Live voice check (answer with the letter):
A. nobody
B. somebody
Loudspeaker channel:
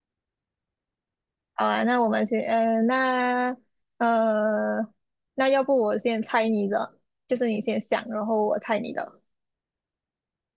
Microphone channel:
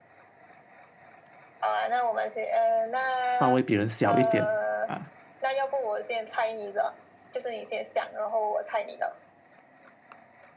B